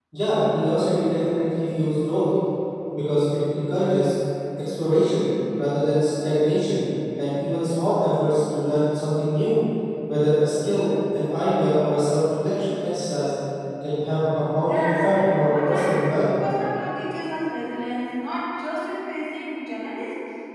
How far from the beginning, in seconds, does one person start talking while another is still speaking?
14.6 s

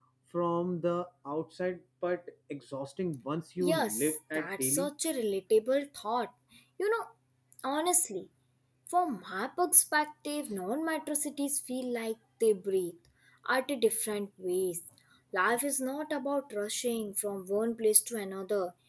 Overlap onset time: 3.6 s

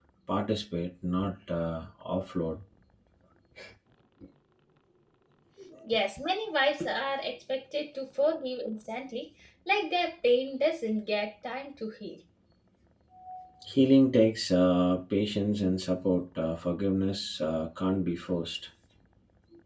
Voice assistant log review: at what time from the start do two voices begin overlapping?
none

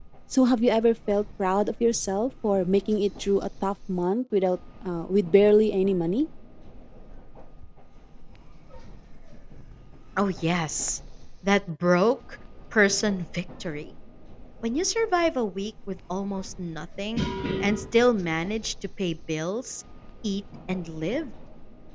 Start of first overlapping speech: none

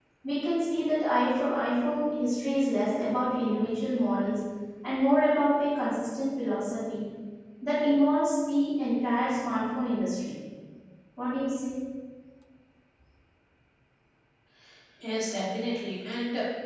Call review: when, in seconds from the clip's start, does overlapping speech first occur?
none

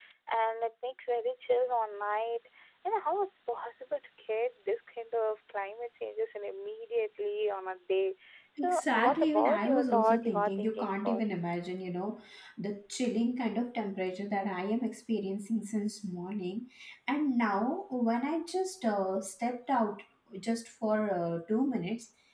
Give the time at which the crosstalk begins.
8.6 s

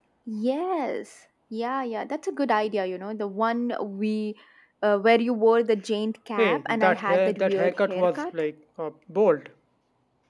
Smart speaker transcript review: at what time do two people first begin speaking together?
6.4 s

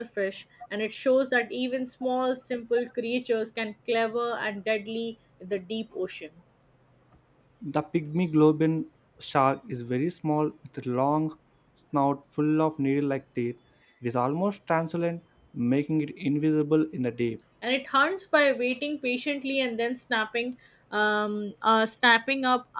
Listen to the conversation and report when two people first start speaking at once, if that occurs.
none

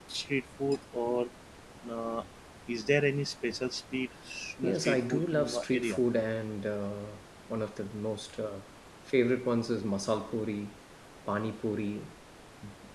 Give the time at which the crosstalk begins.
4.6 s

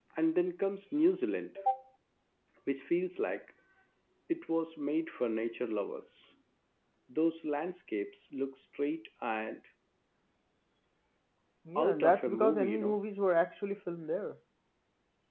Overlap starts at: 11.8 s

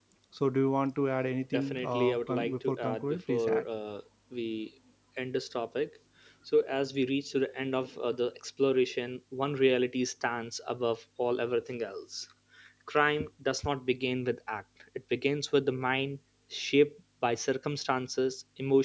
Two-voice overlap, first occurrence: 1.5 s

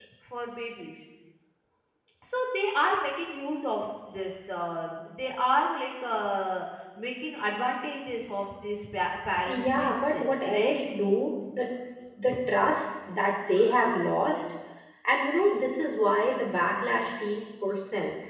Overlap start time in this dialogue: 9.3 s

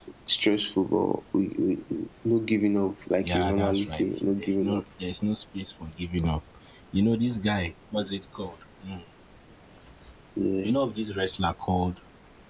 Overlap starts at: 3.2 s

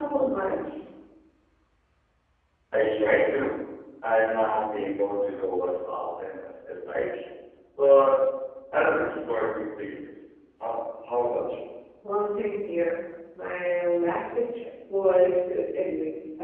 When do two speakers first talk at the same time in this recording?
none

